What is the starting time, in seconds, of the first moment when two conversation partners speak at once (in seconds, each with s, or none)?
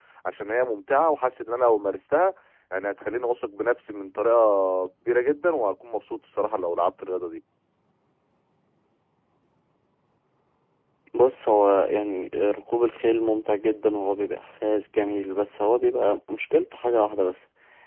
none